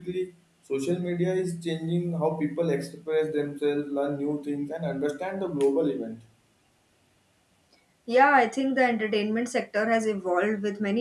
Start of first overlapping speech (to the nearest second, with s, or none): none